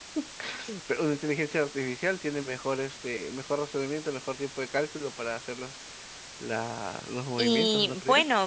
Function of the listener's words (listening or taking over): taking over